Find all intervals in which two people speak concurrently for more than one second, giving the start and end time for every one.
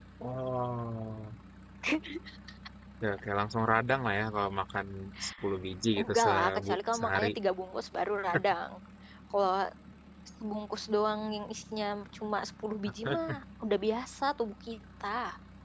6.0-7.3

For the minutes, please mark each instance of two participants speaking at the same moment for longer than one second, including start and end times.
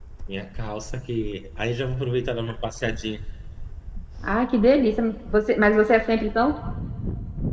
none

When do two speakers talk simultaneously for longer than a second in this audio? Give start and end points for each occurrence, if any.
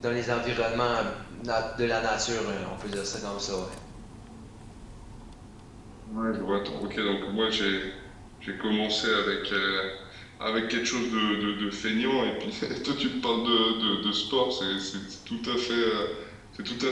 none

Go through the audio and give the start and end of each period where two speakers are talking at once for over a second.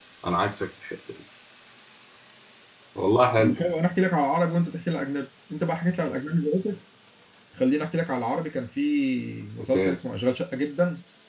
none

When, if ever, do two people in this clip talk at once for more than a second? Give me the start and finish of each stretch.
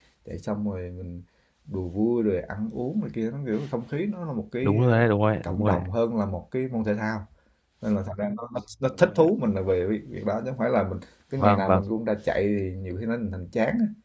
none

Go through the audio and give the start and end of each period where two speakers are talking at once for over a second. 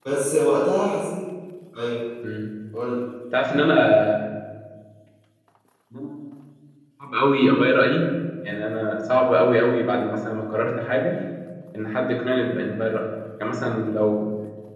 none

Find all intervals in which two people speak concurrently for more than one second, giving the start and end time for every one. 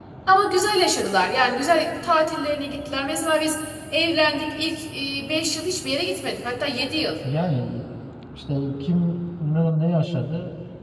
none

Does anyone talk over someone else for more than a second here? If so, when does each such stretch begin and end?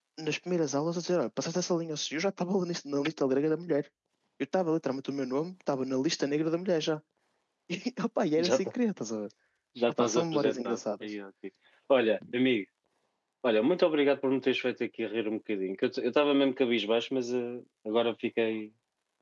9.9-11.1

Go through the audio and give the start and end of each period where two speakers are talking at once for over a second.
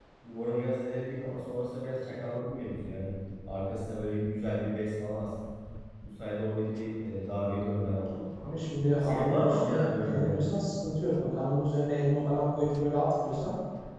9.0-10.6

